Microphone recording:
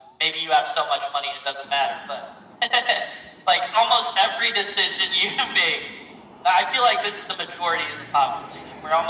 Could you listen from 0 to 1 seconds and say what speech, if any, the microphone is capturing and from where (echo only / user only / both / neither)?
echo only